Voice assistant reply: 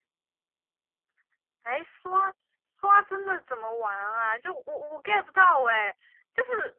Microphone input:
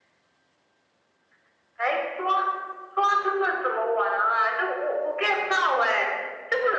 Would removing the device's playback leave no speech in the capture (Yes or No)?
Yes